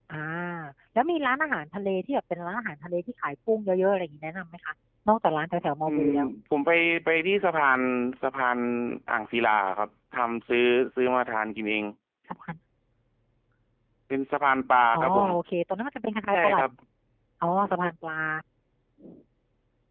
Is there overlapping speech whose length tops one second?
No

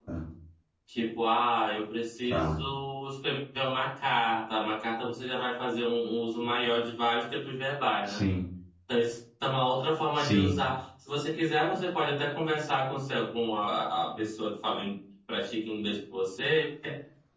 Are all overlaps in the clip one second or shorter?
Yes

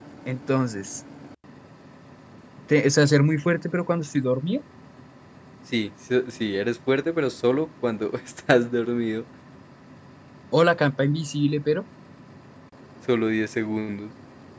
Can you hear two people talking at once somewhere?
No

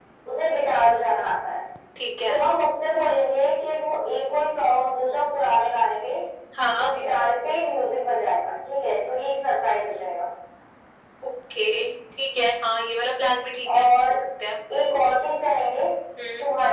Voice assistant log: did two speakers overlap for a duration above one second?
No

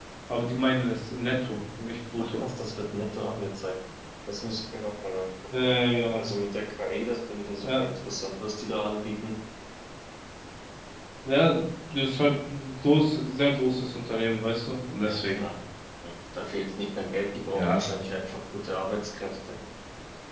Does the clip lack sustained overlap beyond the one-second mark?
Yes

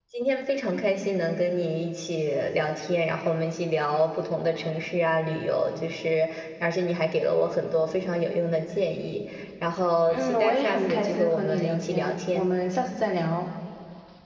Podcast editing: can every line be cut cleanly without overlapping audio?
No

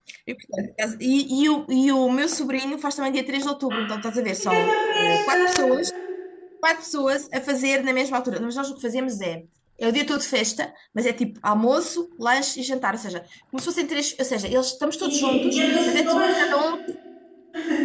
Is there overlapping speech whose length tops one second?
Yes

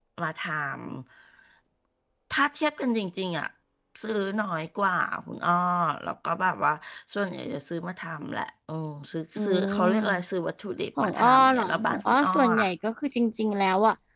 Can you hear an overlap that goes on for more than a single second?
Yes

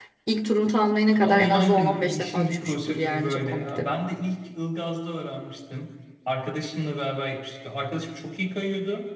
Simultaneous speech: Yes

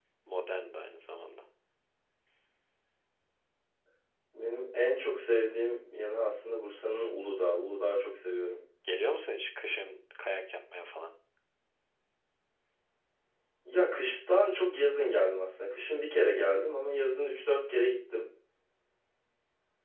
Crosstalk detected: No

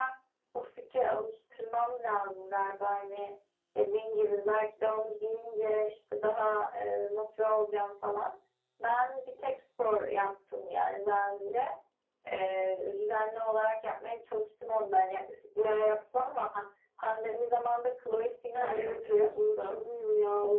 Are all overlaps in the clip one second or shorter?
No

